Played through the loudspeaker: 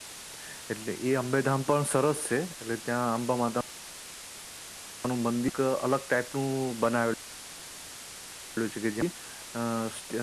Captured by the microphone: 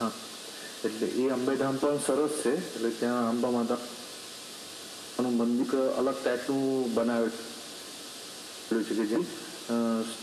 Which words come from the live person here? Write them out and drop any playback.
none

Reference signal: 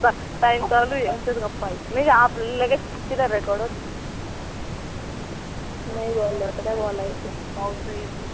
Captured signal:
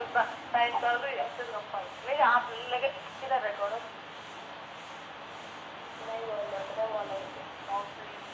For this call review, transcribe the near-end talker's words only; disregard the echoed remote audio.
none

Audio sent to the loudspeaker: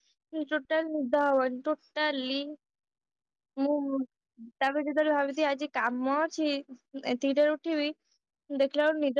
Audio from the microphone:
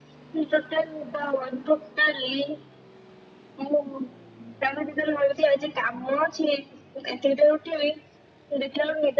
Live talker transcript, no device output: none

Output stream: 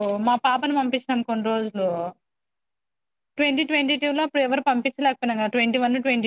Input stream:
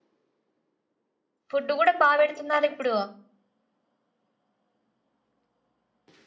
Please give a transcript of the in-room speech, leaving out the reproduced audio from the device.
ఫుడ్ కూడా బాగా పెడుతున్నారు ఇప్పుడు

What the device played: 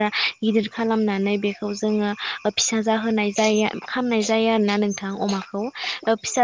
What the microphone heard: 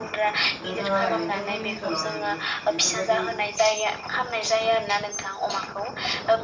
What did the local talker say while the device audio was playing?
नोंथाङालाय नों थांमोननि ओनसोलावलाय बेफोर बेफोरबायदि

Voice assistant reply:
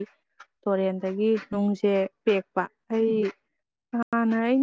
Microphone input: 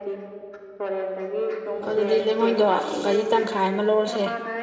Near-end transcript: ꯑꯗꯨꯗꯤ ꯂꯩꯉꯣꯏꯗꯣ ꯒꯥꯔꯤ ꯇꯪꯈꯥꯏ ꯑꯃ ꯂꯧꯔꯁꯦ

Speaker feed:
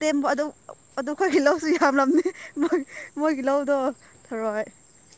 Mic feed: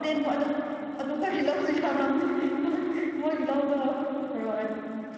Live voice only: none

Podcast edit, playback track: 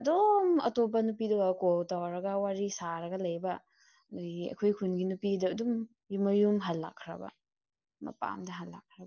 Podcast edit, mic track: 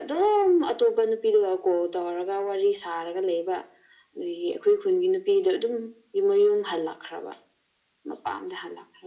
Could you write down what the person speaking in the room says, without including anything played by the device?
none

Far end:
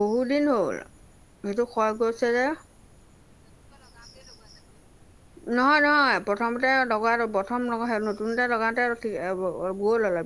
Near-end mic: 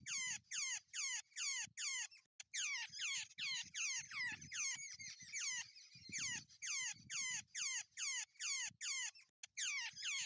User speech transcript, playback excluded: none

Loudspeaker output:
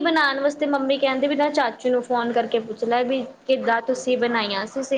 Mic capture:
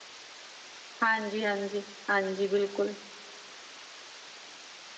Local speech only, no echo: ਹਾਂਜੀ, ਹਾਂਜੀ, ਹਾਂਜੀ ਬਿਲਕੁਲ।

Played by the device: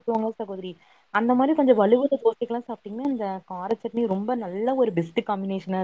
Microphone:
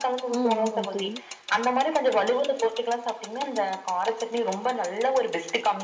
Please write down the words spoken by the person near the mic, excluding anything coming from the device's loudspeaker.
ம். ஆமாங்க தோழி.

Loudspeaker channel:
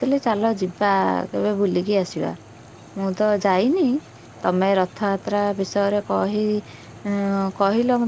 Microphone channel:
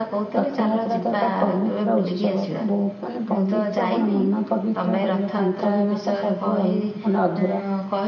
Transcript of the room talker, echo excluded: ରଥଯାତ୍ରା ତ ଏକ ପବିତ୍ର ଉତ୍ସବ। ବହୁତ ମାନେ ପବିତ୍ର କଣ ମନ ପବି ତ୍ର କରିବା ତାଙ୍କ ବିନା ତ ସବୁ ଅଲ ମାନେ ଅଧୁରା।

